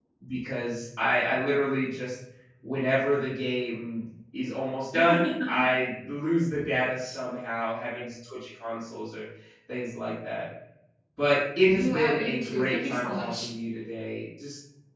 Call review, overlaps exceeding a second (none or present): present